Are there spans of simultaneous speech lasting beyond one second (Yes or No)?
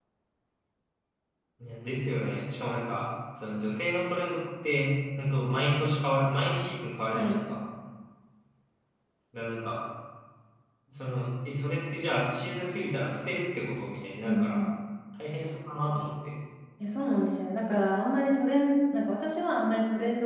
No